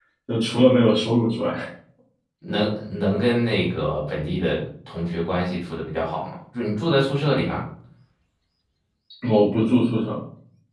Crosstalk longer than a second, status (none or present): none